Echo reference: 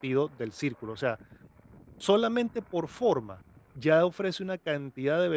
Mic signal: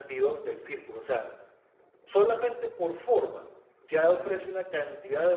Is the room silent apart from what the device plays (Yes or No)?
Yes